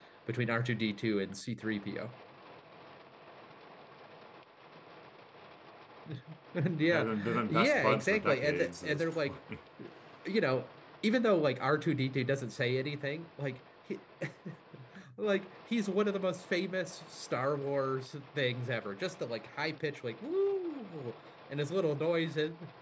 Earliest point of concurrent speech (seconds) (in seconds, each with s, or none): 6.9 s